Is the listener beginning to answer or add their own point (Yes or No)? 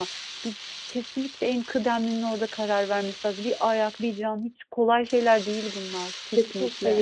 Yes